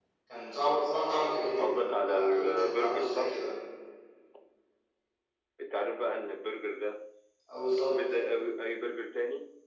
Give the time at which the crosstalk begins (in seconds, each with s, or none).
1.6 s